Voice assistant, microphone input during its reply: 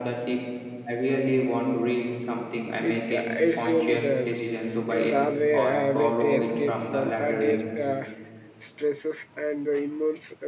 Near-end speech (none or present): present